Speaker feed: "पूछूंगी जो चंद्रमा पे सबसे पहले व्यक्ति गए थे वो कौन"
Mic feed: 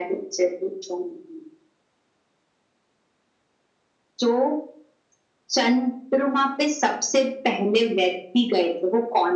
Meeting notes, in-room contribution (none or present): none